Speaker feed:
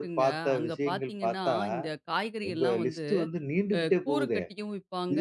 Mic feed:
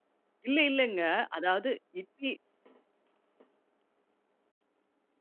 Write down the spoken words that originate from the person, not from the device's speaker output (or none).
இல்ல இல்லங்க. அதாவது இட்லி